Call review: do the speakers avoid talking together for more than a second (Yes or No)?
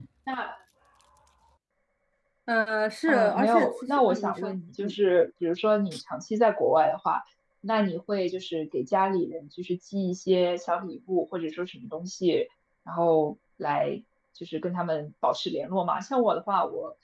No